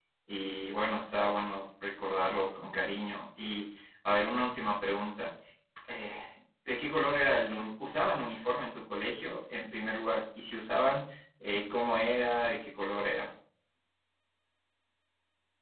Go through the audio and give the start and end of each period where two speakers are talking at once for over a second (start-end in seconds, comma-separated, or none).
none